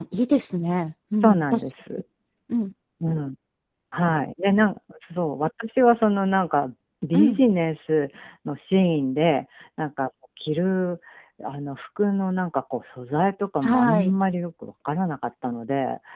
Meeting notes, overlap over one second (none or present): none